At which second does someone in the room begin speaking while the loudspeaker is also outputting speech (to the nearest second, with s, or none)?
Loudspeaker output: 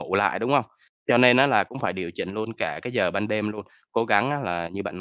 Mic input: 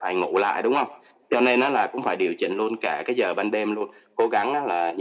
none